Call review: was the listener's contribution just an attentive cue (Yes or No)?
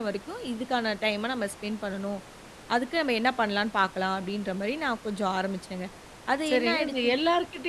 No